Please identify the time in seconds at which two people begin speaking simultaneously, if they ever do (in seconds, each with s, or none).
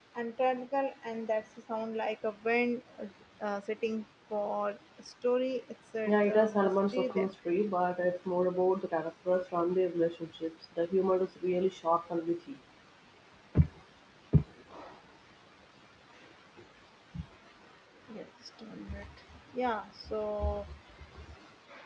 6.0 s